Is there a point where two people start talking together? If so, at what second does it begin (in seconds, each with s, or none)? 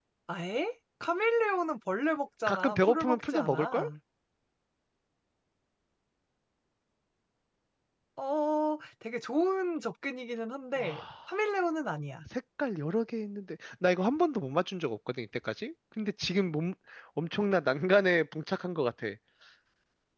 2.5 s